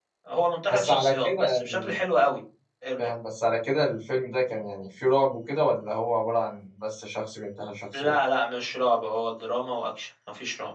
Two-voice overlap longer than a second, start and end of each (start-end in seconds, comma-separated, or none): 0.7-2.0